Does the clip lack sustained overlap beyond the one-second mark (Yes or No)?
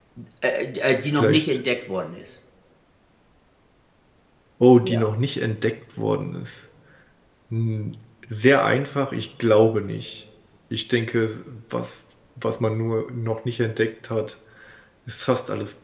Yes